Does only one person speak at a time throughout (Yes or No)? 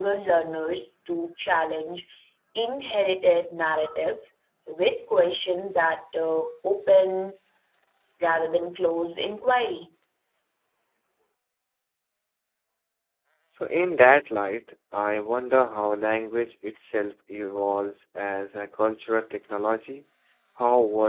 Yes